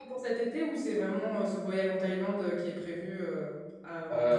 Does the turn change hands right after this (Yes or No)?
Yes